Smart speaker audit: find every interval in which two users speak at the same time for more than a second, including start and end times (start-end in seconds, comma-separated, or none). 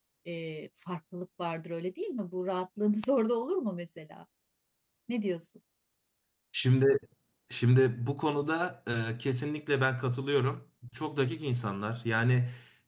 none